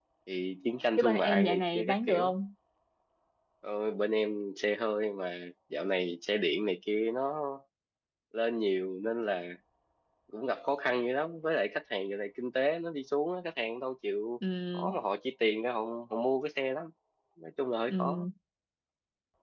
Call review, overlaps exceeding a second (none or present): present